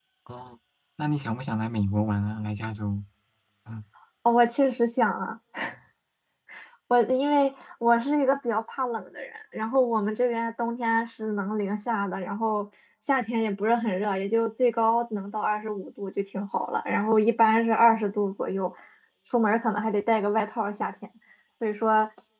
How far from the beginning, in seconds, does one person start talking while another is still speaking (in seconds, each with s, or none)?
none